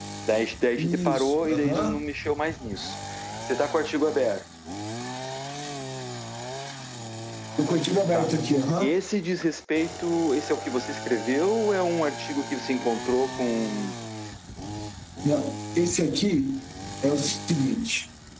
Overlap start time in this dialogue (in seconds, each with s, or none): 0.8 s